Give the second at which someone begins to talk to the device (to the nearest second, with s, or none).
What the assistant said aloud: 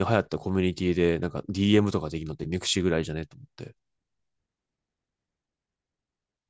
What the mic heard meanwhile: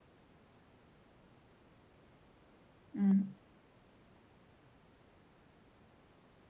3 s